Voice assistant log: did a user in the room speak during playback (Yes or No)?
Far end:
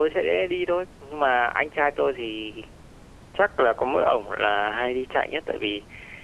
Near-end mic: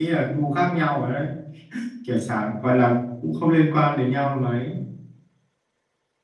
Yes